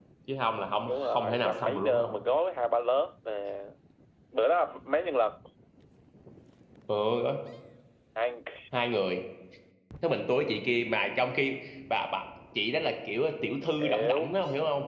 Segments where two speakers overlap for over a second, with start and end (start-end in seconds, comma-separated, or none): 0.9-2.1